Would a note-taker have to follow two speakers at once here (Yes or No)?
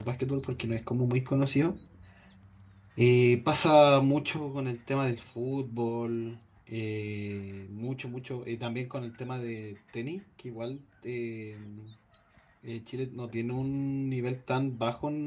No